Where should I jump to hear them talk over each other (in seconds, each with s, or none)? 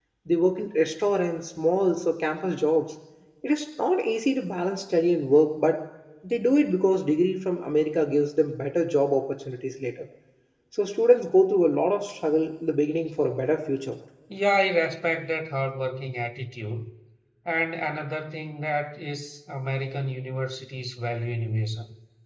none